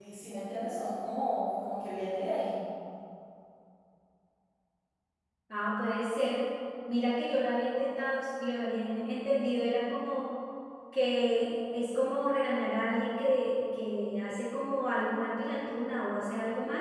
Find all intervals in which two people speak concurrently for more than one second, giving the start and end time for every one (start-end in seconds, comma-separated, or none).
none